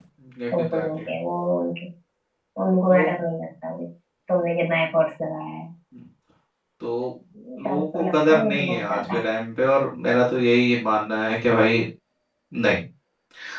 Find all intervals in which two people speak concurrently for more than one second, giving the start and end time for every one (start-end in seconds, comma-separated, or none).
7.6-9.2